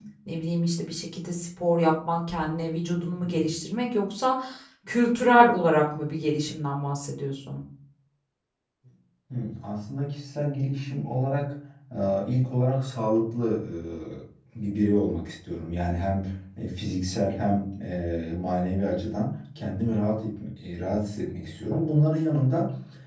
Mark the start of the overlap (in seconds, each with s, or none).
none